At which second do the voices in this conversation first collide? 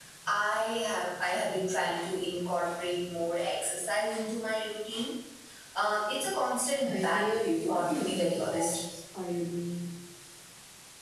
6.8 s

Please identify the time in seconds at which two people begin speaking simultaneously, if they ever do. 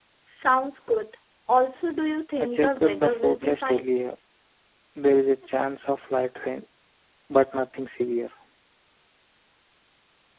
2.4 s

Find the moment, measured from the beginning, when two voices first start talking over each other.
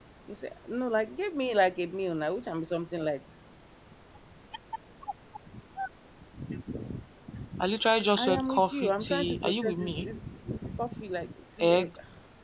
8.2 s

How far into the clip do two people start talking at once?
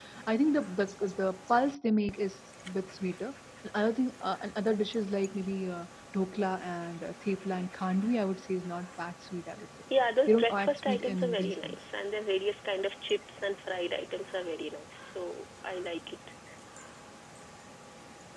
10.3 s

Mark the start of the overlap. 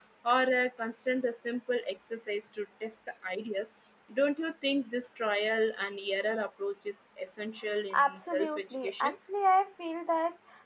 7.9 s

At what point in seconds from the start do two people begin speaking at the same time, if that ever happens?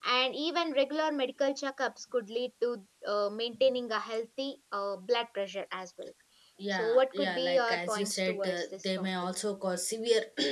6.7 s

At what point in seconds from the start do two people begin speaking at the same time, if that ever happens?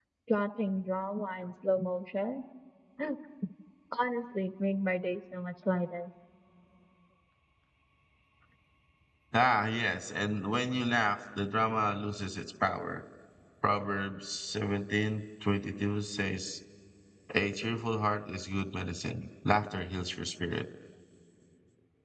none

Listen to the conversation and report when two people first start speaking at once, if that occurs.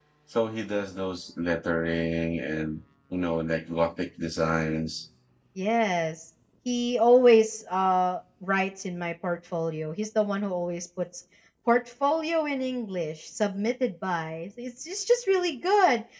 none

